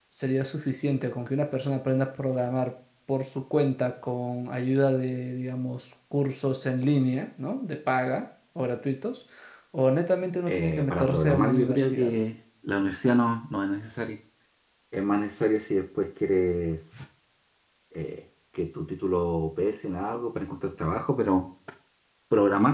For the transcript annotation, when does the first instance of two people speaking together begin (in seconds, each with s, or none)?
10.5 s